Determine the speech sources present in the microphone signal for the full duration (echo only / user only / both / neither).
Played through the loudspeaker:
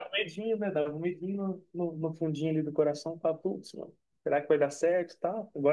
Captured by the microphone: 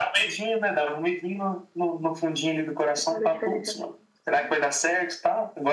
both